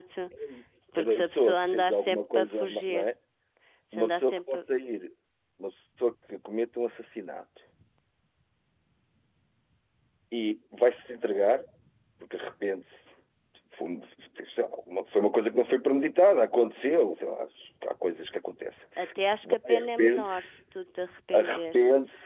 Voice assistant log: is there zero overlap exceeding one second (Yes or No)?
No